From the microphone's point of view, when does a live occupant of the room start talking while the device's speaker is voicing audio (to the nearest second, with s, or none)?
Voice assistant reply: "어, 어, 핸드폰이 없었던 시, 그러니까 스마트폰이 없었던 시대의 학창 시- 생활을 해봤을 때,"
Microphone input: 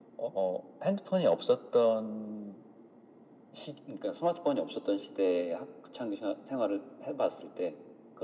none